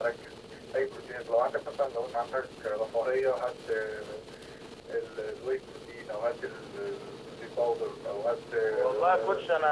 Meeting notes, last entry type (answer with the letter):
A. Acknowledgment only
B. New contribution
B